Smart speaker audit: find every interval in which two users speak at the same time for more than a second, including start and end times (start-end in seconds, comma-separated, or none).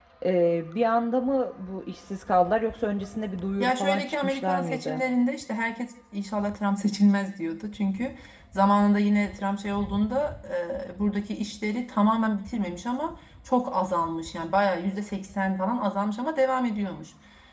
3.6-5.0